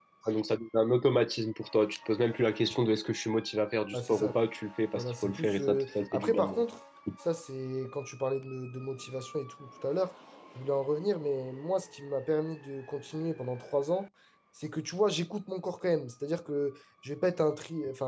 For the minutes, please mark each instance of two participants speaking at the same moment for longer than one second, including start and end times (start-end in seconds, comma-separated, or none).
4.9-6.6